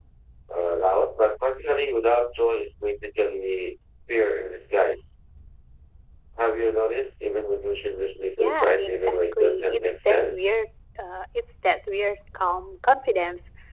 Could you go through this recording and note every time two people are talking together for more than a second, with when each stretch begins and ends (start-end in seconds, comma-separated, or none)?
8.4-10.6